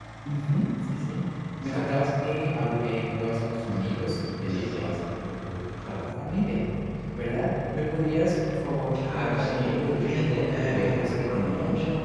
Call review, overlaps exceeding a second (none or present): present